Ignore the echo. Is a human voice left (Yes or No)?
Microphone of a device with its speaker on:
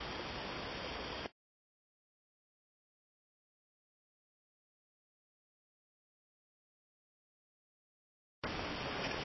No